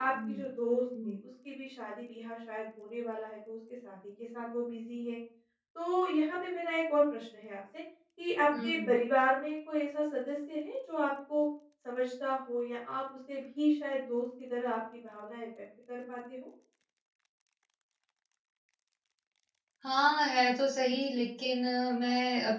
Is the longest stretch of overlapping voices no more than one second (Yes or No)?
Yes